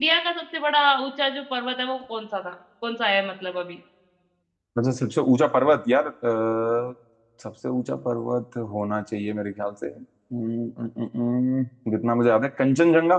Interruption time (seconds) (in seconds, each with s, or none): none